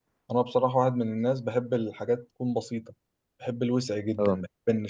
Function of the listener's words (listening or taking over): listening